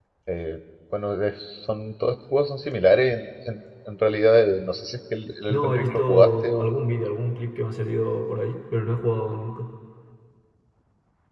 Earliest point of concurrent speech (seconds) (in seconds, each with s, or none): 5.5 s